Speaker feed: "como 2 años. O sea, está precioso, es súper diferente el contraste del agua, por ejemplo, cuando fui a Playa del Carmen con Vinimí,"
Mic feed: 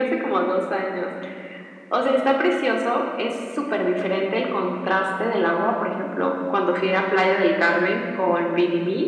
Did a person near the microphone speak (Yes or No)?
No